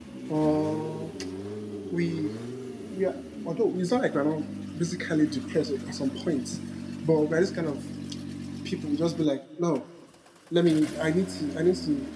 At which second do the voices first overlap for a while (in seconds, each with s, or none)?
none